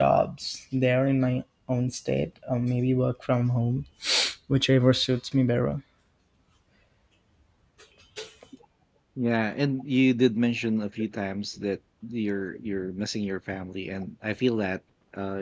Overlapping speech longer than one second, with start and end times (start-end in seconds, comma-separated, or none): none